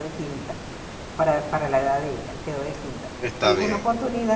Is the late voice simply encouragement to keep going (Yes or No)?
Yes